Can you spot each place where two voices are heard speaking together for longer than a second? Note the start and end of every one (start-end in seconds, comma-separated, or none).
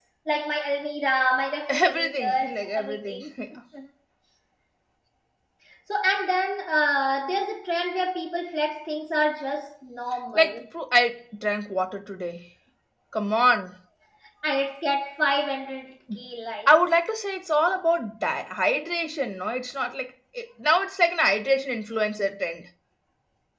1.7-3.2